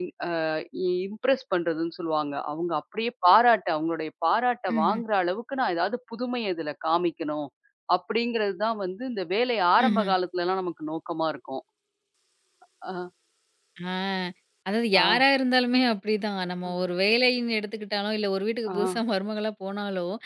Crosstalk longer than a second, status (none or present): none